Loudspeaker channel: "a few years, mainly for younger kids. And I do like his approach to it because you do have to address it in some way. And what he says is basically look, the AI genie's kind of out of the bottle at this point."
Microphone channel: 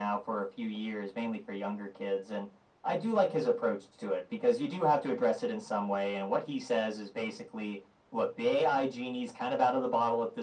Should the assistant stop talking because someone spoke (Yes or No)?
No